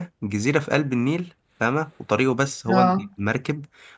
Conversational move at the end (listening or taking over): listening